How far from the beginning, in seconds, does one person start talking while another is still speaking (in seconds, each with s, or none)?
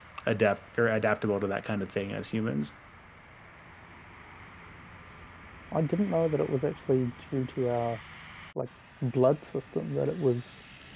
none